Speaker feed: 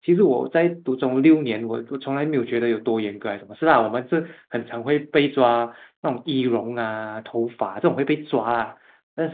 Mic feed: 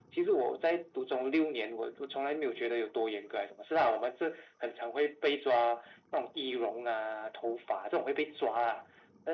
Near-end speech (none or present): none